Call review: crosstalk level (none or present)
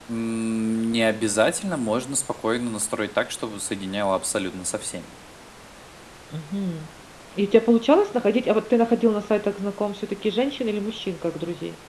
none